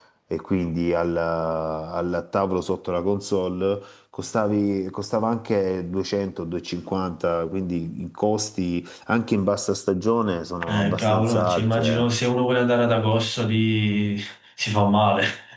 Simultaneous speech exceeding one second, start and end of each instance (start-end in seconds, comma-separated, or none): 10.6-12.1